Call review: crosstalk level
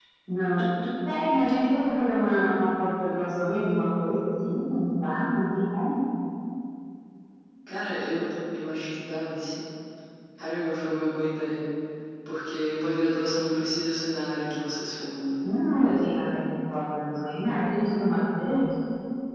none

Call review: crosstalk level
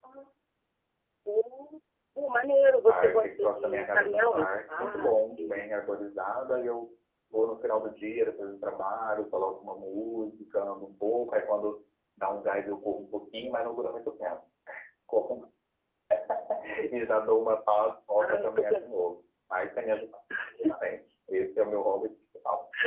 present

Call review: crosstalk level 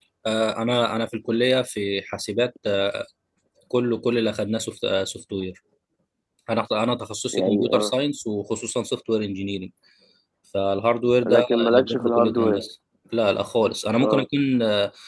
present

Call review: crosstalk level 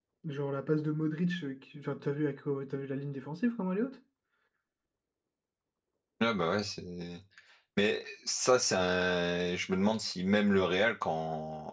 none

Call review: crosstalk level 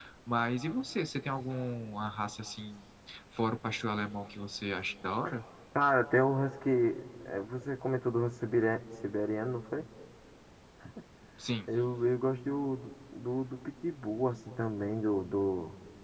none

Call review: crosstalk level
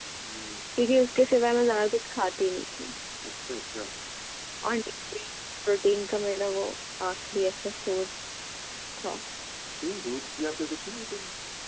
none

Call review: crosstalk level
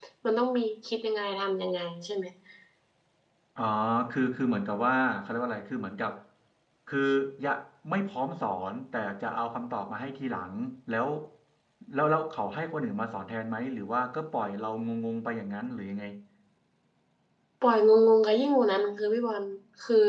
none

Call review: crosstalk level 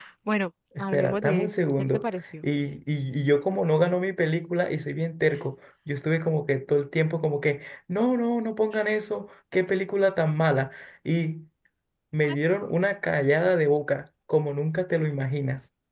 present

